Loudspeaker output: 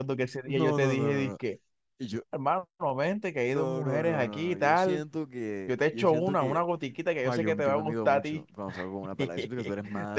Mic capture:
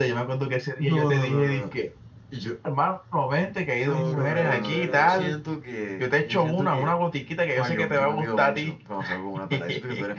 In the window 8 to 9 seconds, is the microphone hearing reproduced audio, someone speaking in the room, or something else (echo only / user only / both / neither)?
echo only